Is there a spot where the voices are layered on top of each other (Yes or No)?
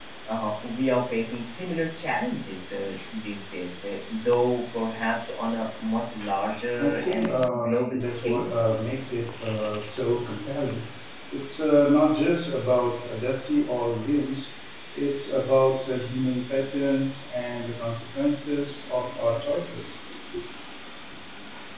Yes